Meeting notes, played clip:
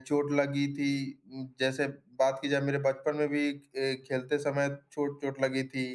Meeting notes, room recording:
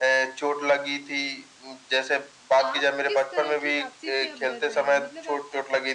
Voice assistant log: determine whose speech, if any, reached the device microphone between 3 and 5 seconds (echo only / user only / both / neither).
both